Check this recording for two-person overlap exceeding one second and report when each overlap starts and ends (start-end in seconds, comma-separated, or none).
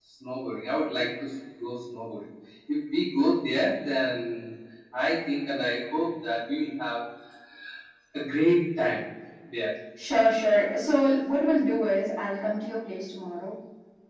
none